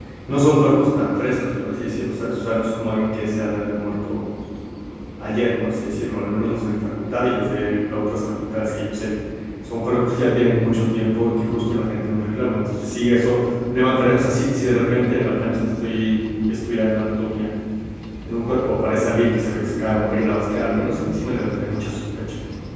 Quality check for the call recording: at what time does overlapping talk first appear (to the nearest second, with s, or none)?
none